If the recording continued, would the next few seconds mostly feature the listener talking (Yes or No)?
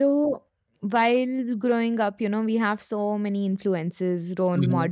No